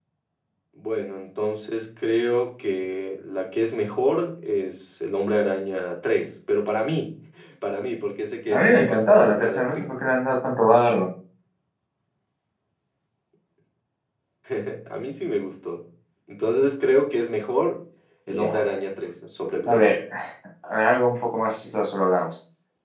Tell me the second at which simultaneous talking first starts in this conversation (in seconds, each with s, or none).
8.5 s